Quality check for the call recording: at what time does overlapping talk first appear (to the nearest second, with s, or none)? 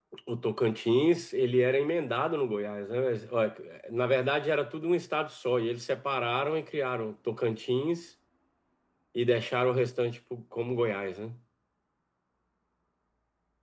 none